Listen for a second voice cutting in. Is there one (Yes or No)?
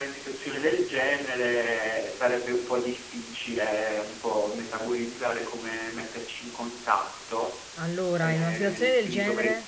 Yes